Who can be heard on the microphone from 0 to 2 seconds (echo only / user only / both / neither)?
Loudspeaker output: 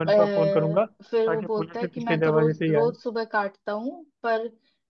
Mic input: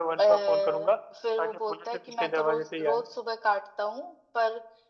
echo only